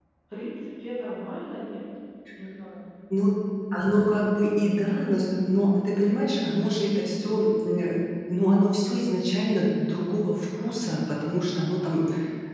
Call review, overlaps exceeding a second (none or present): none